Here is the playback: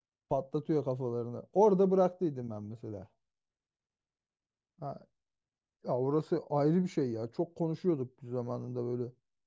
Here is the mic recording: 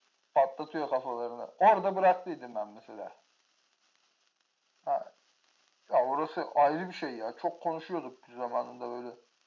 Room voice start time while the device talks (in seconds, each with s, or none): none